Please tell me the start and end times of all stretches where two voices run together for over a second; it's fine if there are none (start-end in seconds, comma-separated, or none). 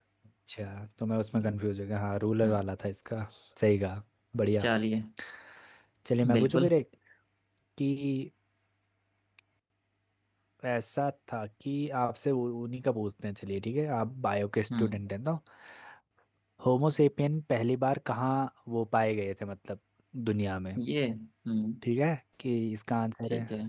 none